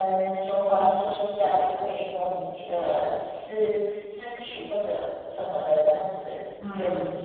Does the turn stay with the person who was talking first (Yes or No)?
Yes